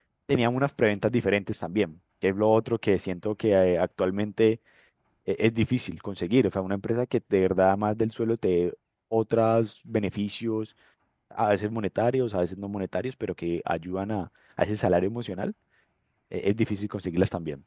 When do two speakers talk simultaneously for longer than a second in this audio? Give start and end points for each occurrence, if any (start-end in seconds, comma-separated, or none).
none